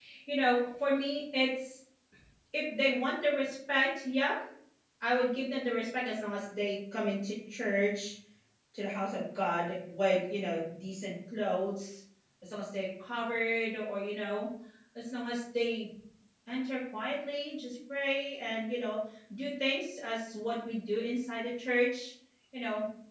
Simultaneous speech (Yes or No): No